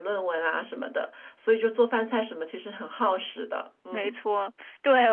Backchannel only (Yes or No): No